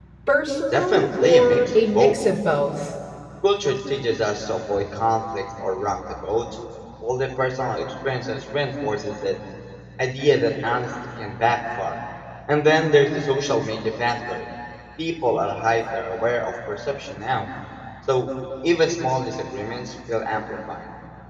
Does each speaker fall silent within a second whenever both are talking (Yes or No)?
No